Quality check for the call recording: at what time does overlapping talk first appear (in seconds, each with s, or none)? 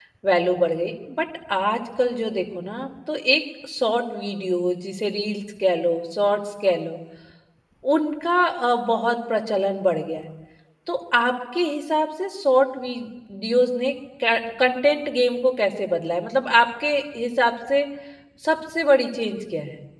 none